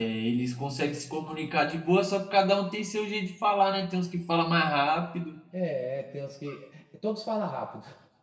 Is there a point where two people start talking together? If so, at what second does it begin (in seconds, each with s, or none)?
none